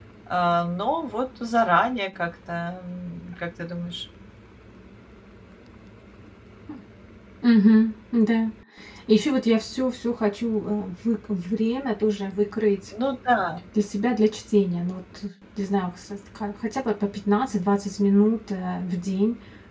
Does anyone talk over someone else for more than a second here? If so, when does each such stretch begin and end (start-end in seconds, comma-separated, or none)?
none